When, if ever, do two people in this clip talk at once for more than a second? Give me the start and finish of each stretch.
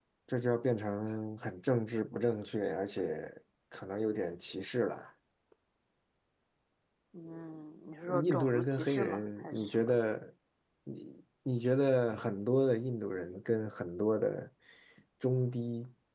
8.2-10.0

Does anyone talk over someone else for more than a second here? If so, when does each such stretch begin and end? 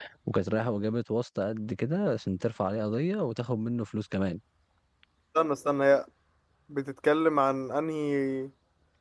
none

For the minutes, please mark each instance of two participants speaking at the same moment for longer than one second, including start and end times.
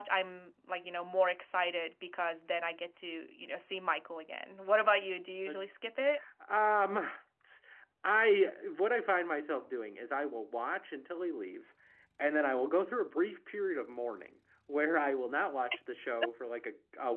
none

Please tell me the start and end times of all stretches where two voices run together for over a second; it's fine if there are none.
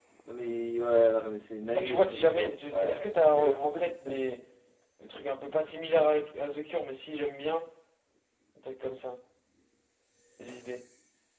1.7-3.7

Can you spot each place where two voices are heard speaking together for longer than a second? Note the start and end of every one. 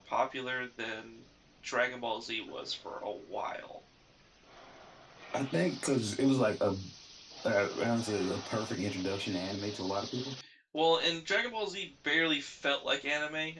none

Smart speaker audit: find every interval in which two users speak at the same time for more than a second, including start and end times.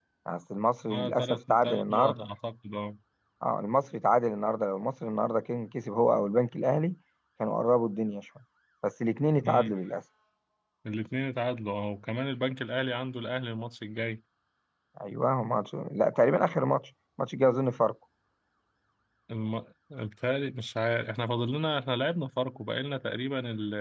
0.9-2.3

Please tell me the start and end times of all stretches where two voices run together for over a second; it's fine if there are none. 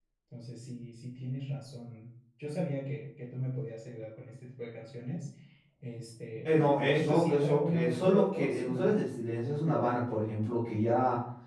6.9-8.9

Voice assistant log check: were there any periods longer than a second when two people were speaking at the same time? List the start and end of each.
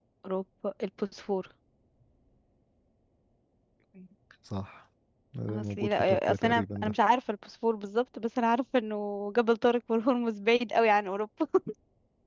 5.5-6.9

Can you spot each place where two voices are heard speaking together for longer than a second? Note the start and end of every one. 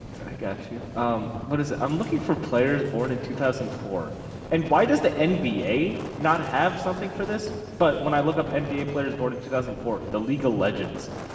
none

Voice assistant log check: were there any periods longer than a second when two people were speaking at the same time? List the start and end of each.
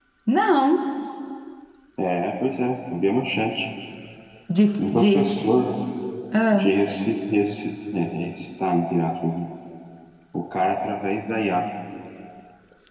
none

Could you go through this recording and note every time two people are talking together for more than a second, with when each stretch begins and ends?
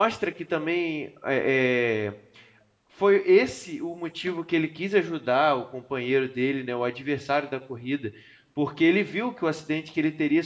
none

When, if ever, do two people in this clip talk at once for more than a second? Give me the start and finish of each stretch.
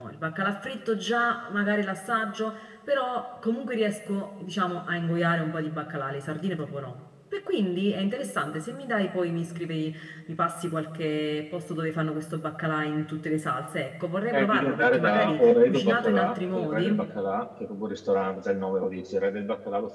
14.3-17.1

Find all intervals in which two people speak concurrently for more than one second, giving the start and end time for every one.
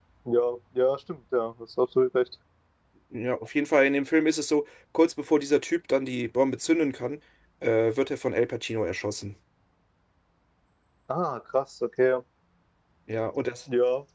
none

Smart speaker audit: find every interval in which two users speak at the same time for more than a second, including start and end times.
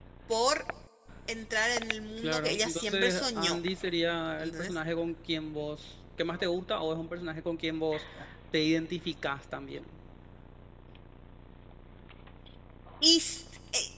2.2-3.6

